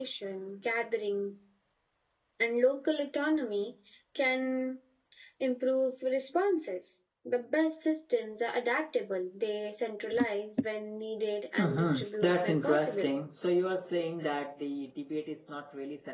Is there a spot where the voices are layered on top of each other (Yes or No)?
Yes